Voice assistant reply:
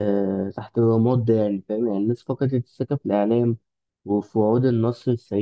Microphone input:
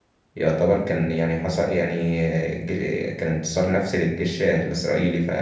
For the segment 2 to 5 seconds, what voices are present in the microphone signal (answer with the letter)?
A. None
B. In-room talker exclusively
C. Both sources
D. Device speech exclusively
B